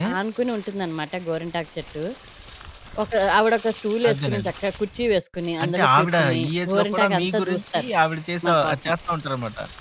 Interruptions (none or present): present